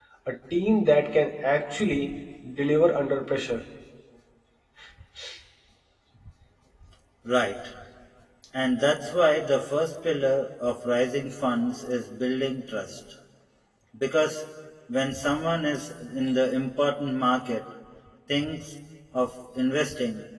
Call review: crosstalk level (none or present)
none